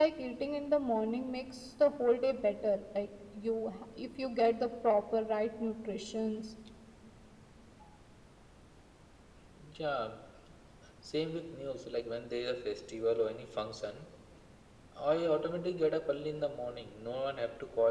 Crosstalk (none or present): none